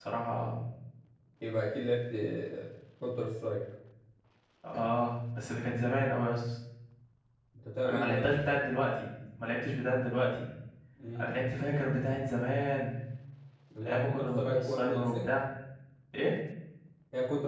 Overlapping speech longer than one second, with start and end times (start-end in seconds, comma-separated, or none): 13.9-15.3